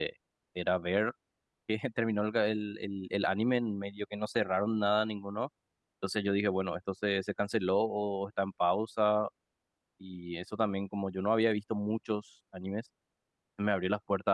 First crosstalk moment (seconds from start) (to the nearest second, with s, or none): none